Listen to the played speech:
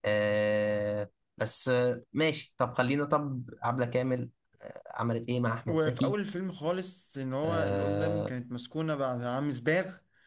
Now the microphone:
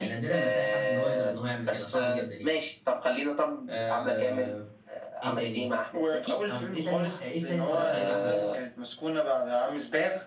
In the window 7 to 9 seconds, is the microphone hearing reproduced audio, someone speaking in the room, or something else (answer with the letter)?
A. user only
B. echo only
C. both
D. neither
C